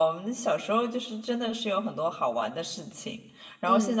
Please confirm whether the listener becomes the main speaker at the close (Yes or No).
No